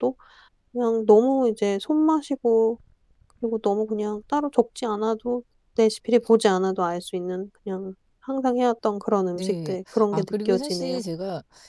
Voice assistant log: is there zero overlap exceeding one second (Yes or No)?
No